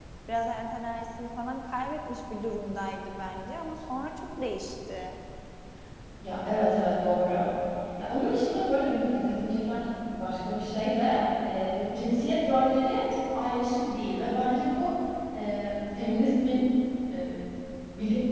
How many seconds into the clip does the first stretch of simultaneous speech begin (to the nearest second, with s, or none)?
none